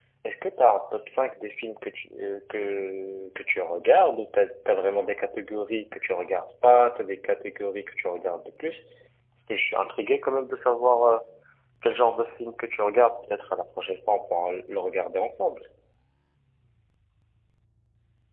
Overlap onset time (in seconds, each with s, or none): none